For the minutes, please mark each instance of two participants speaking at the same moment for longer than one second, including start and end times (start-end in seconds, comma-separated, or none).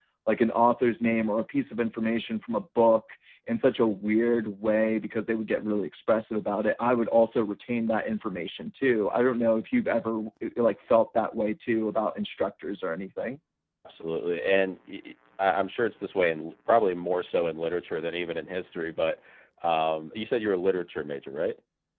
none